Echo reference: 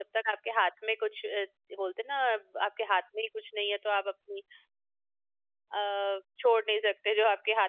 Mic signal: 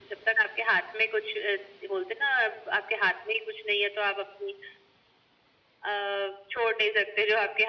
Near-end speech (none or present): none